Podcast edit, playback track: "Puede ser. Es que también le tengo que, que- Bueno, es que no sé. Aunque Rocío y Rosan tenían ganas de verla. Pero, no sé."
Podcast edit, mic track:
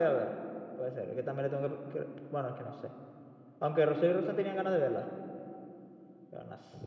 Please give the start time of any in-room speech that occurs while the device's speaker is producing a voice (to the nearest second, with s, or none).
none